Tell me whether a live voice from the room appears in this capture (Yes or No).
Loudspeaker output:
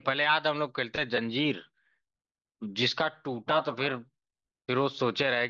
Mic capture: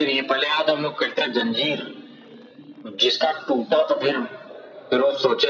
No